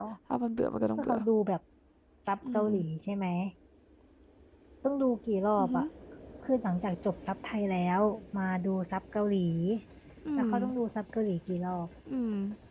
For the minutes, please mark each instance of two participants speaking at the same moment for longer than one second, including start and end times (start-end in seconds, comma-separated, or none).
none